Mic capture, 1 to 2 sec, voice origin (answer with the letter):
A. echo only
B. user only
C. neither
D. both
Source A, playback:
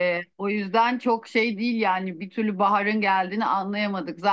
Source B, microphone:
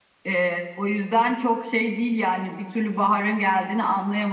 A